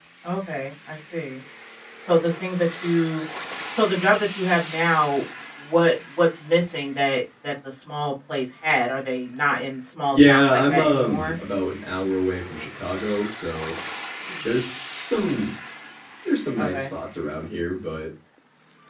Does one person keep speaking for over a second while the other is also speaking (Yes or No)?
Yes